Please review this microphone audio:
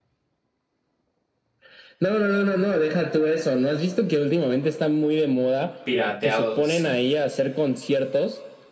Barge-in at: 6 s

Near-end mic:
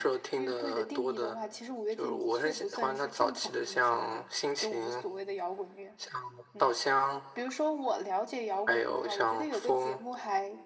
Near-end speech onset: none

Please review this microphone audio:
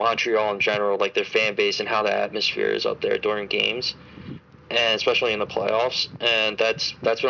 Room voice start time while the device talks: none

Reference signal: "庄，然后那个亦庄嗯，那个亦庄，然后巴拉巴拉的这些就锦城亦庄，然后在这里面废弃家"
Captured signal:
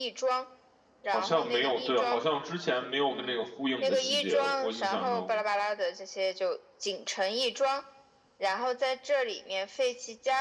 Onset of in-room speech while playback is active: 1 s

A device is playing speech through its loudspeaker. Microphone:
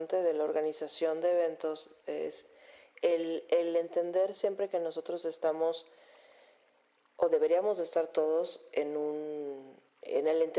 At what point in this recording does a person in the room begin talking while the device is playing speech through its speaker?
none

